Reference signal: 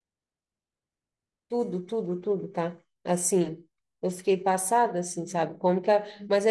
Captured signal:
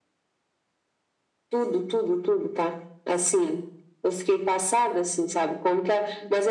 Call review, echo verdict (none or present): present